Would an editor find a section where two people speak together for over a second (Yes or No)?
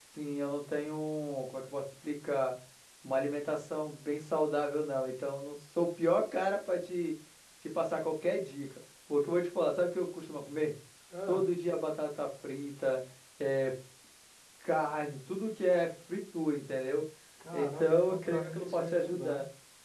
Yes